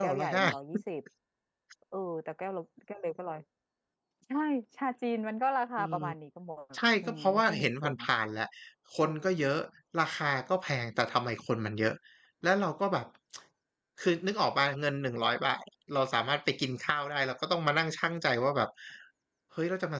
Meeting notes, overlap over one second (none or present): present